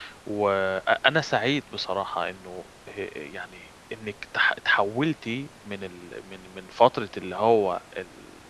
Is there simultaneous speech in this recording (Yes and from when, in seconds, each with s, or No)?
No